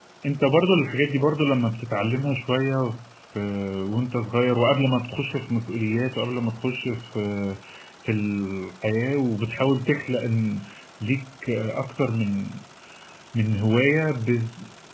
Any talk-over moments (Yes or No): No